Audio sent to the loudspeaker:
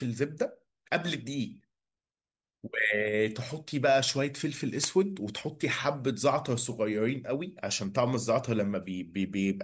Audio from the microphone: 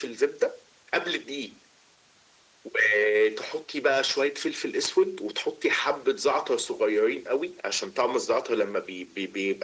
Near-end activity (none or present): none